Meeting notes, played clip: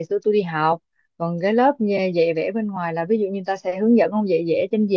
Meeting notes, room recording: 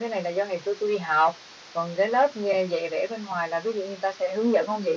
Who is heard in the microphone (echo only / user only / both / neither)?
echo only